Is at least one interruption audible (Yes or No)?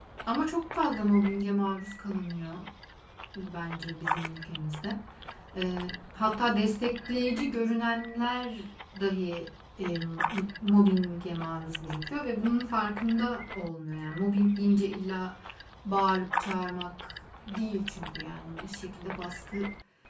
No